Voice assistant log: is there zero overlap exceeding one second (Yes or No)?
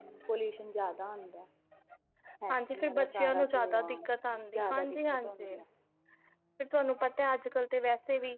No